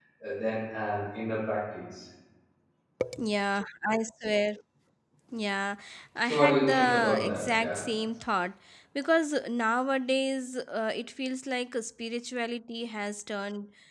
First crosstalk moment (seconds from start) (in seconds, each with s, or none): 6.2 s